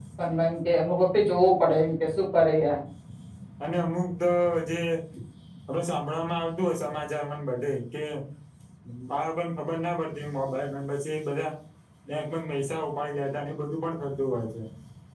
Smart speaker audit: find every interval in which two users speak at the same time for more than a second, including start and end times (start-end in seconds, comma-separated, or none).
none